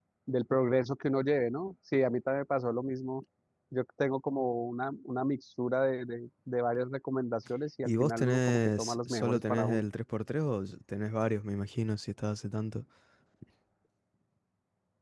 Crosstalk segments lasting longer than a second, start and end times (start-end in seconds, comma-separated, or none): 7.8-9.8